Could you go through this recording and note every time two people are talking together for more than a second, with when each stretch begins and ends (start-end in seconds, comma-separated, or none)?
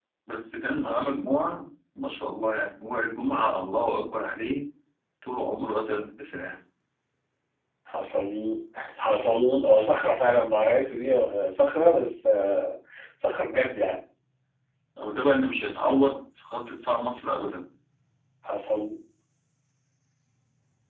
none